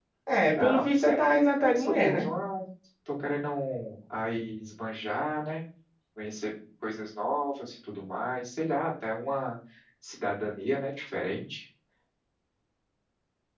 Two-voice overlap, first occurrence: 1 s

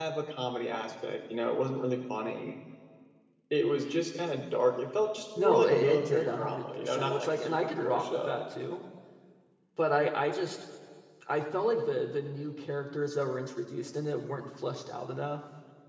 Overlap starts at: 5 s

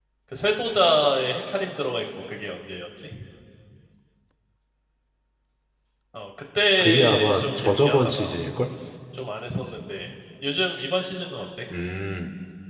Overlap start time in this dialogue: 7 s

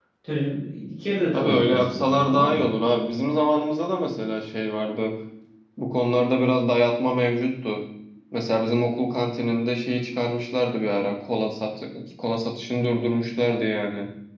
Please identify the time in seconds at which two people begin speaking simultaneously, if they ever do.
1 s

